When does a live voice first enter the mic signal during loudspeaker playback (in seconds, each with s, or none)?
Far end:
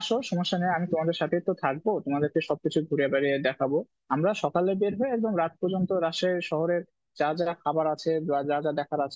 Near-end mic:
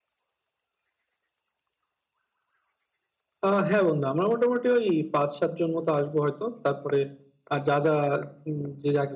3.4 s